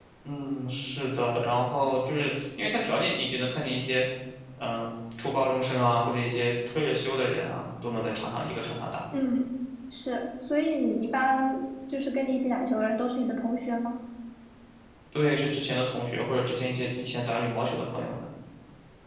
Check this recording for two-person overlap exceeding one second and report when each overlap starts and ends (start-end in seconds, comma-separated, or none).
none